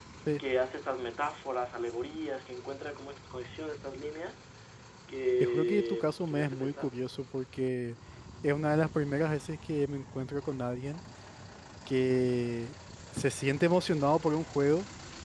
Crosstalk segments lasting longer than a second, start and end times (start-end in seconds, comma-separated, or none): 5.4-7.0